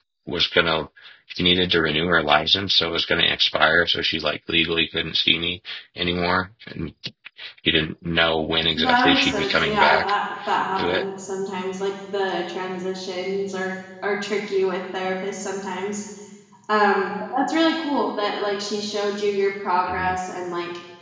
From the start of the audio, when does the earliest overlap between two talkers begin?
8.8 s

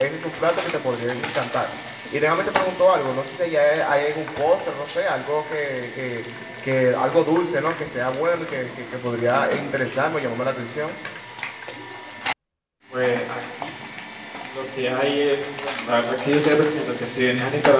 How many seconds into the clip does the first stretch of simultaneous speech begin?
none

